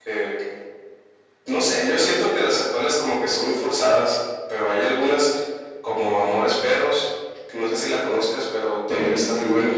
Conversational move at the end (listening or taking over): taking over